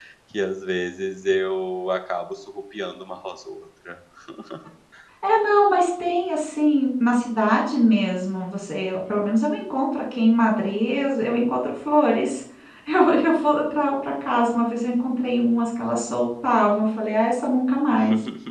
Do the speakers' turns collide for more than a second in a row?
No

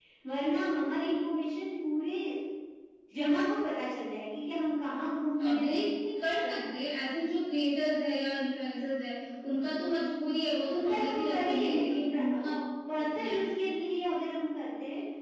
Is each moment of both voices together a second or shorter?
No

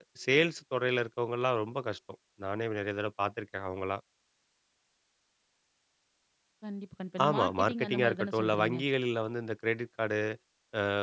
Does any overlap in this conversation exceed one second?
Yes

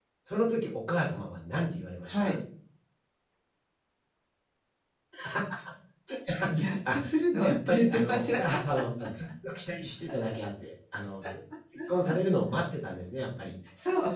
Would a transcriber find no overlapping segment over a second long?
No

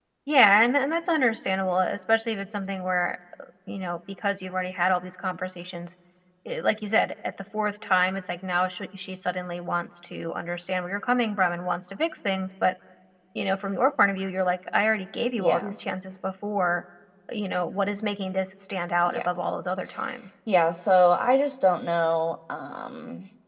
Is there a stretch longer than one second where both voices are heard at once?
No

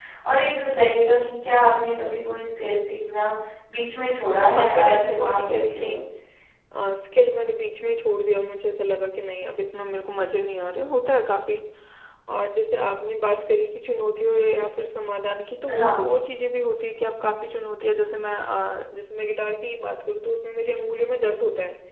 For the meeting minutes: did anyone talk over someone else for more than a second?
Yes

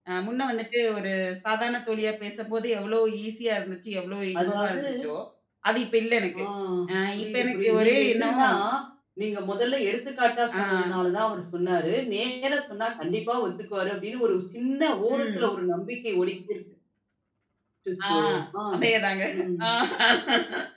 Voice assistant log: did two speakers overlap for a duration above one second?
Yes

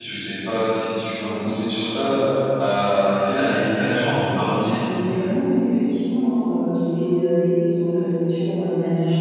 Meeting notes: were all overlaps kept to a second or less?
Yes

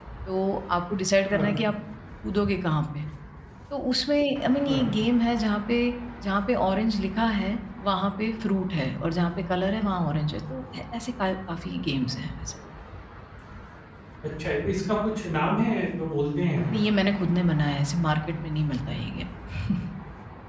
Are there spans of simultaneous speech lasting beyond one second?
No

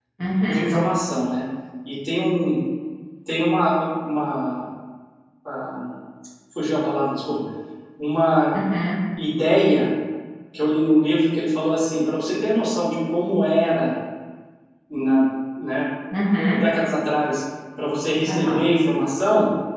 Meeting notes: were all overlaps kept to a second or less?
Yes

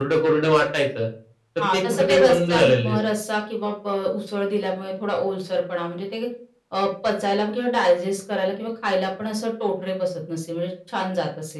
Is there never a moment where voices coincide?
No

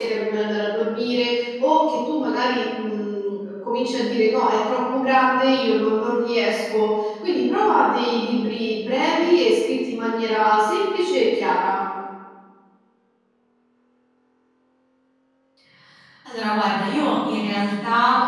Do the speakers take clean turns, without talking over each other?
Yes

